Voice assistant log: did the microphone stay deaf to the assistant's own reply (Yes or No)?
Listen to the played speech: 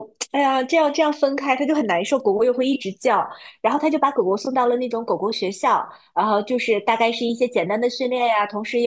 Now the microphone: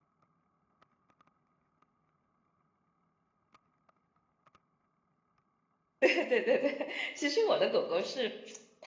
Yes